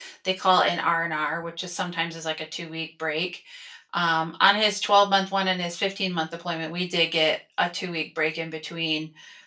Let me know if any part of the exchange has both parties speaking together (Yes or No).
No